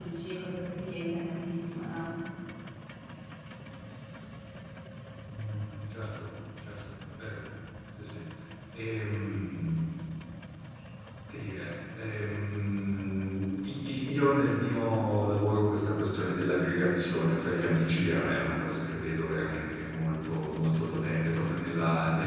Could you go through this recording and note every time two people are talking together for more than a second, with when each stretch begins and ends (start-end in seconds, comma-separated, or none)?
none